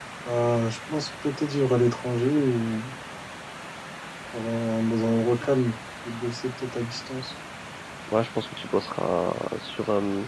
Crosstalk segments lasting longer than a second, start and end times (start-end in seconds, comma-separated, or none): none